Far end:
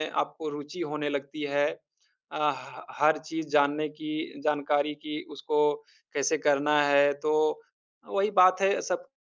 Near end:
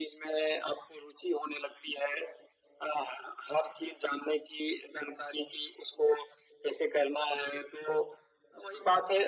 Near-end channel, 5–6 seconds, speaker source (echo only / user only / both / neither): echo only